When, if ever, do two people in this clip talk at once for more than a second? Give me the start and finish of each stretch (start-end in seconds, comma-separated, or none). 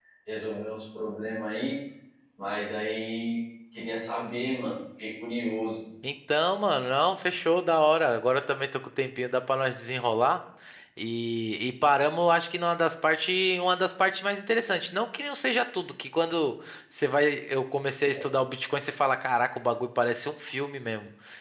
none